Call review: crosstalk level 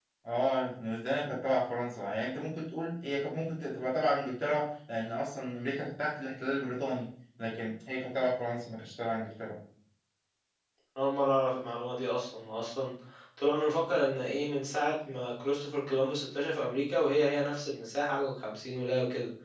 none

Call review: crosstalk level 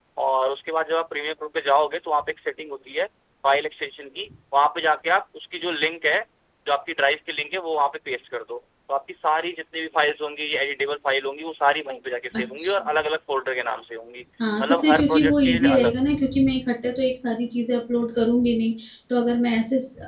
present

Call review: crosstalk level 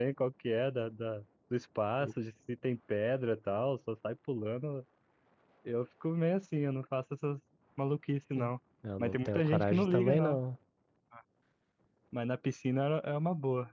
present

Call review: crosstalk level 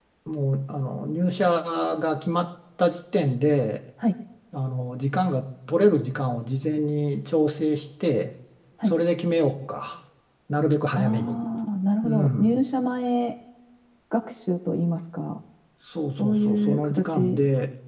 present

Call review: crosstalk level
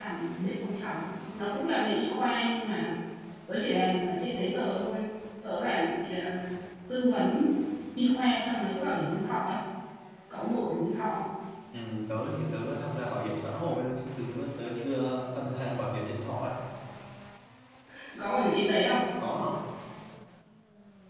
none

